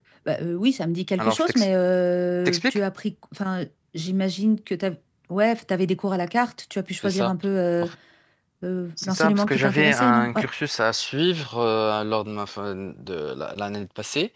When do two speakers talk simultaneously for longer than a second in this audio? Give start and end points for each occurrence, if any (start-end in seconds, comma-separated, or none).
9.0-10.5